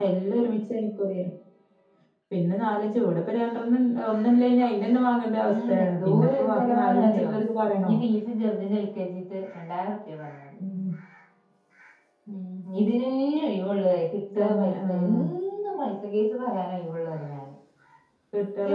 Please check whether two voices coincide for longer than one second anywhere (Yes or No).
Yes